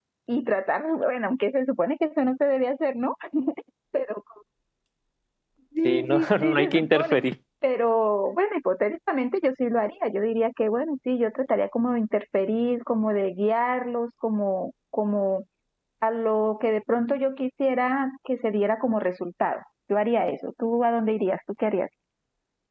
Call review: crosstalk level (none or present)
present